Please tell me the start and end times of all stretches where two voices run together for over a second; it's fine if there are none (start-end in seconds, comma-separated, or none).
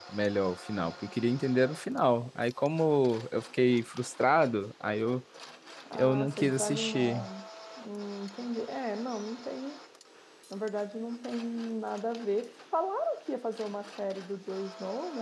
5.9-7.3